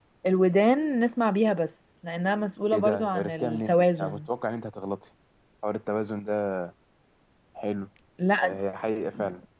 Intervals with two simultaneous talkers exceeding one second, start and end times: 2.7-4.2

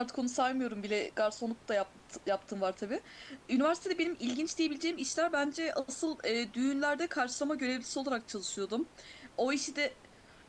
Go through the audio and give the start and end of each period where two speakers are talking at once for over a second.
none

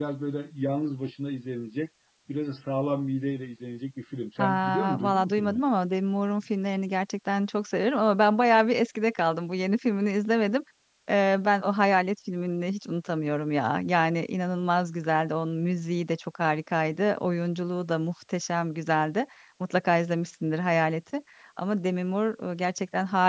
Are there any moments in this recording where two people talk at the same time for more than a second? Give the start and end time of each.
4.4-5.6

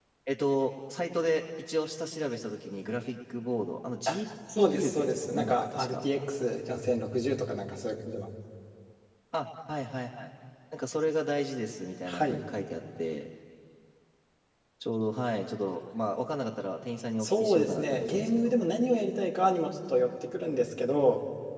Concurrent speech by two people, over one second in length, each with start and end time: 4.5-6.0, 17.2-18.6

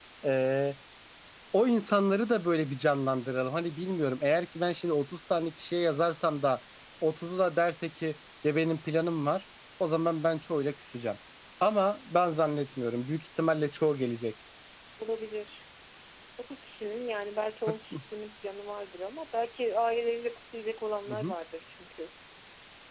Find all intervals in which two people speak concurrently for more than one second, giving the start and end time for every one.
none

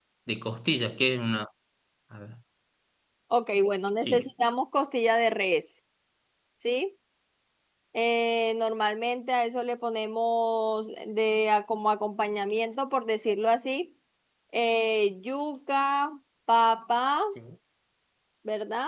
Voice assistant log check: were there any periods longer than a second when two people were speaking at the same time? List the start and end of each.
none

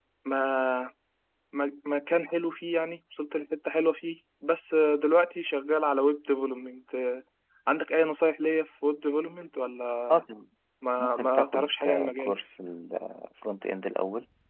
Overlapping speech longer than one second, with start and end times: 11.0-12.3

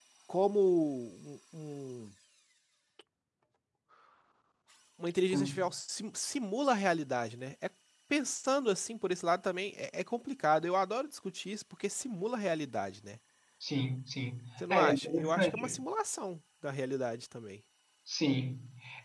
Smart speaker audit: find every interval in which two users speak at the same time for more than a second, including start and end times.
14.6-15.8

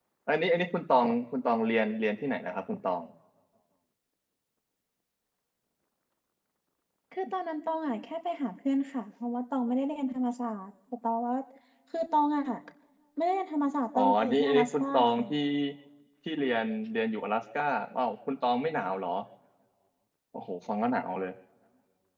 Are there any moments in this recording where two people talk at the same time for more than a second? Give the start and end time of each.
13.9-15.3

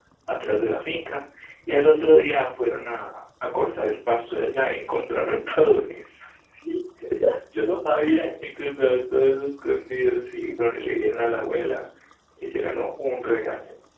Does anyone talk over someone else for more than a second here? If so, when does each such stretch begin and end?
none

